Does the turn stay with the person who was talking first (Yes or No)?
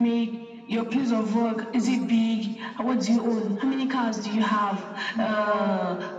Yes